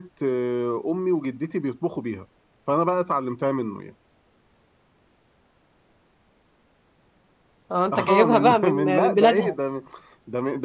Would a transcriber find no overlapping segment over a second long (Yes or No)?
No